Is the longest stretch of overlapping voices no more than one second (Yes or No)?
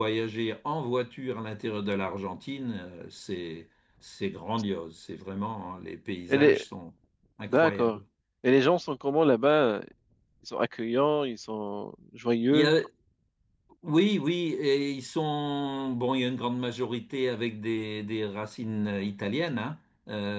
Yes